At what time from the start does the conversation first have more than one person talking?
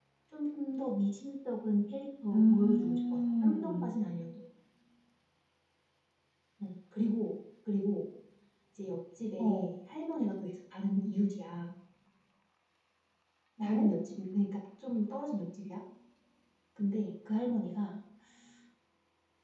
2.3 s

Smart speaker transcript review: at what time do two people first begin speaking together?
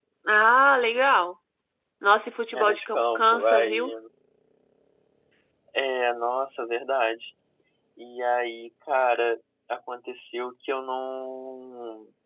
2.5 s

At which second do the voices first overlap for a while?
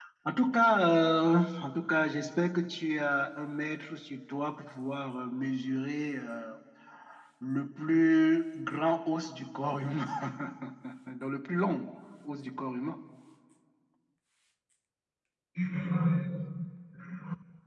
none

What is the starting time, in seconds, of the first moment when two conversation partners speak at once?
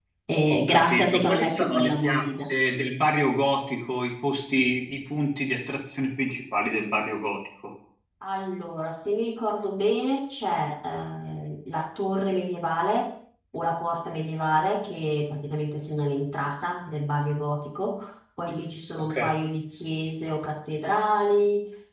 0.5 s

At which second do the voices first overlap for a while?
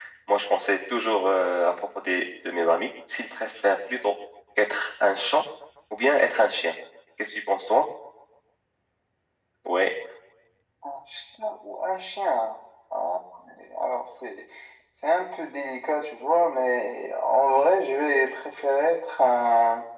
none

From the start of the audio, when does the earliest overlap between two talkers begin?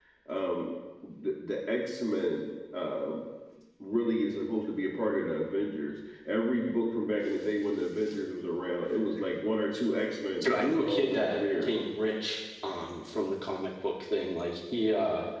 10.4 s

